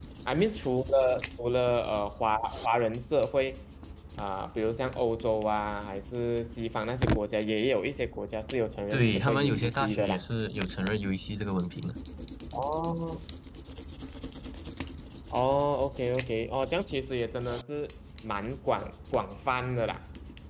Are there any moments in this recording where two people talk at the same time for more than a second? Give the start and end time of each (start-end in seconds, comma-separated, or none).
8.9-10.2